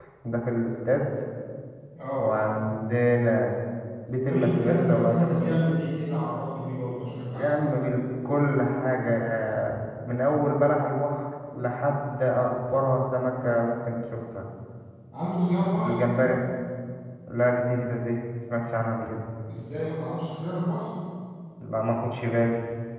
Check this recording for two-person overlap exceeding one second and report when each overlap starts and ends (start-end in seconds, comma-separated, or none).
4.3-5.6